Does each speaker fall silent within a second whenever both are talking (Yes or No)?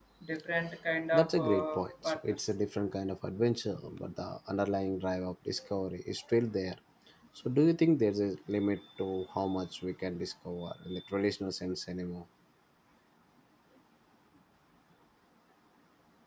No